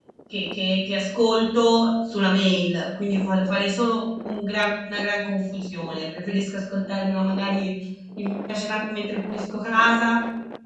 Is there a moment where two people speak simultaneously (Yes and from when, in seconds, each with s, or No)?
No